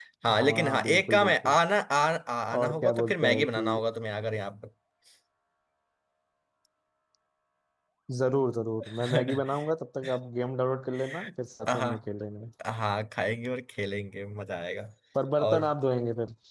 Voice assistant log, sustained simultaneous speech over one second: present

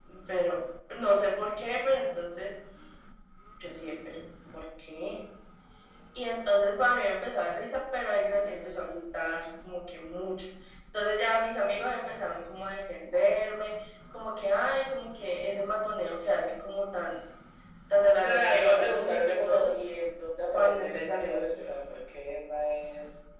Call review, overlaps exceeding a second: present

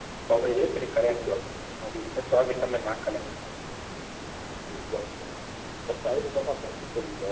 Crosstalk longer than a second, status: none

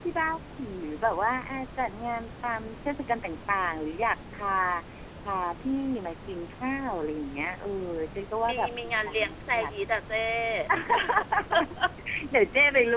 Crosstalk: present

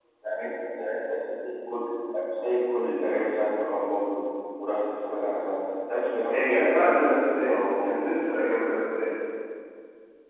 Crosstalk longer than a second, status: present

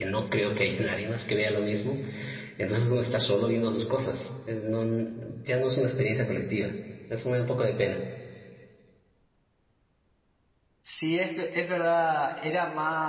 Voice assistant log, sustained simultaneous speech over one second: none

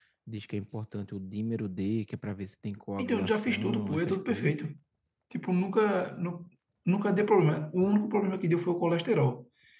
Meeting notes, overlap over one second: present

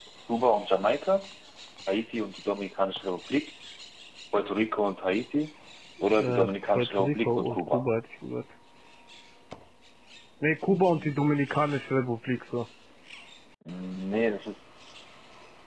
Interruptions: present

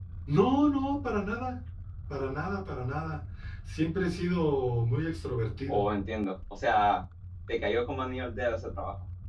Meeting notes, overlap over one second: none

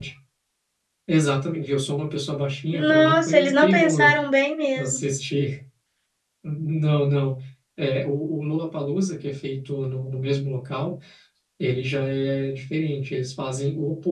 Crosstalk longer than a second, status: present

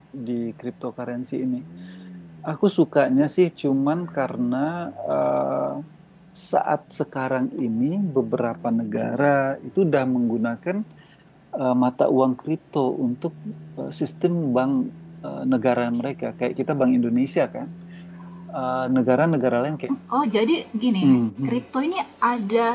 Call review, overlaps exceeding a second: none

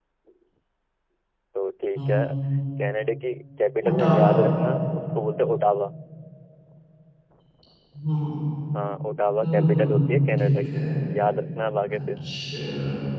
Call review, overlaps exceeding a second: present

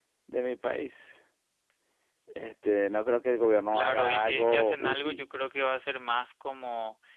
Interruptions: present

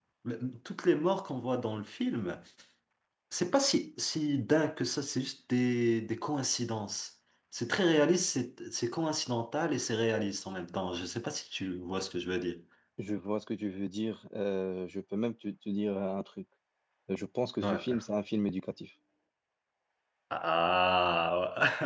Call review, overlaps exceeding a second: none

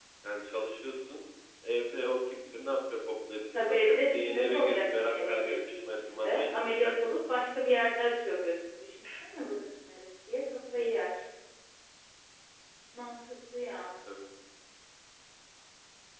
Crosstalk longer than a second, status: present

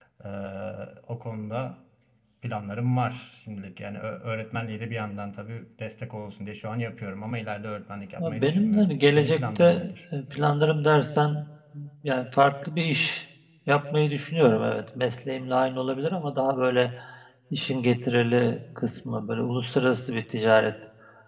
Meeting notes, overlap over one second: present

